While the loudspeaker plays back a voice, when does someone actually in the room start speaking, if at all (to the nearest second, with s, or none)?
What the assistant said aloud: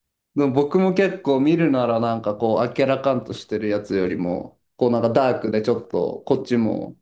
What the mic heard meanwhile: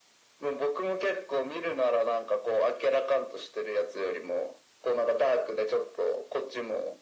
none